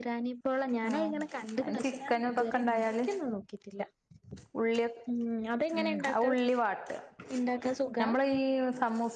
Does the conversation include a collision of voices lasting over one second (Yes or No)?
Yes